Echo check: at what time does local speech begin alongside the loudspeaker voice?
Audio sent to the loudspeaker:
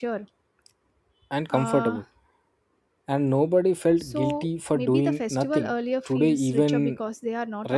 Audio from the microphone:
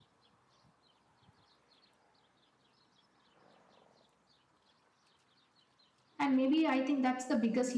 6.2 s

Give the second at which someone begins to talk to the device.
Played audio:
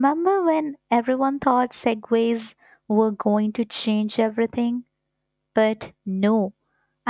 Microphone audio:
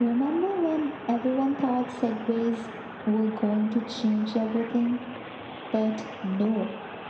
none

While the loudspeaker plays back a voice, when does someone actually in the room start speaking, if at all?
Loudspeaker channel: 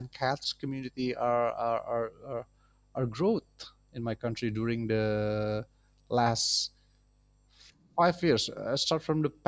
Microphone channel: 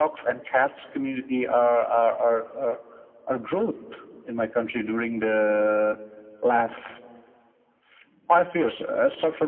none

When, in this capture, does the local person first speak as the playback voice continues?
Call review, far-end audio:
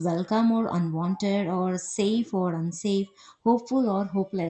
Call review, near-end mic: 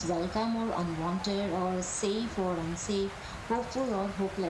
none

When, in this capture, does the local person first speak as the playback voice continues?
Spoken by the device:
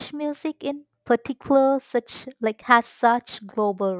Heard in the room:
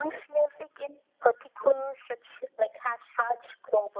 none

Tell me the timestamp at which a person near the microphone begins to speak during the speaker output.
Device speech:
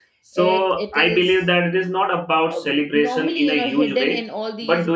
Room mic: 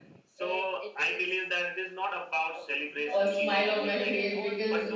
3.1 s

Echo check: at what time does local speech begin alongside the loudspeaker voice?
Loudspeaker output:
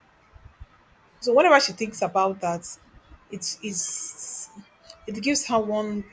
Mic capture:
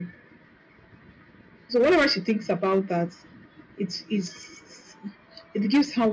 none

